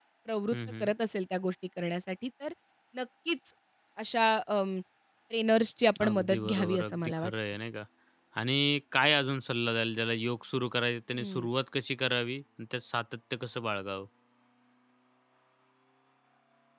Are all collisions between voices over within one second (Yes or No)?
No